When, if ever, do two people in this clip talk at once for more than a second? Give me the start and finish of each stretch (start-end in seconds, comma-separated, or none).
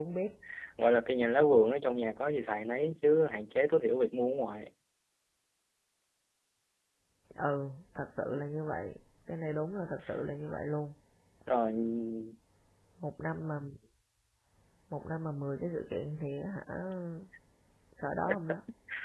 none